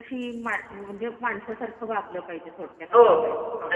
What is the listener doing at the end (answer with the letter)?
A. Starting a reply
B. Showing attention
A